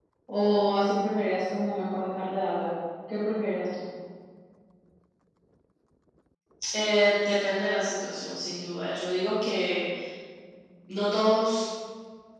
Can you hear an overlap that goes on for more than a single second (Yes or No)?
No